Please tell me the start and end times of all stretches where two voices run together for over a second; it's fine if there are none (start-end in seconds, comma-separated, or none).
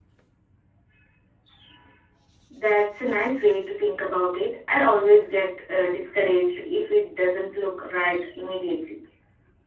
none